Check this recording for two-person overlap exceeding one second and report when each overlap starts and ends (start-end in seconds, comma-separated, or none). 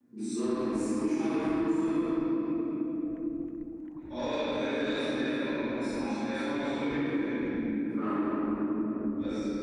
none